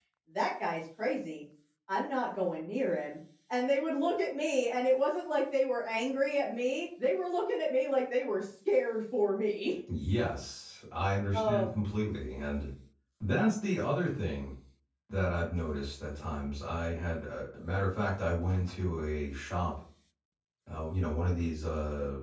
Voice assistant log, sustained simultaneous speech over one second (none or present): none